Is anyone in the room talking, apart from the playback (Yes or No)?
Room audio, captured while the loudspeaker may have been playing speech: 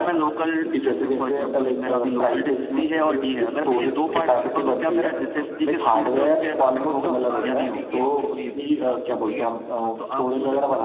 Yes